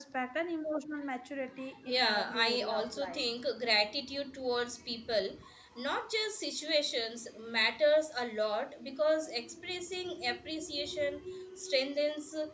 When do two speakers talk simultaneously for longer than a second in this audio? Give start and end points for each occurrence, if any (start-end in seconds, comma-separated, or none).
1.9-3.2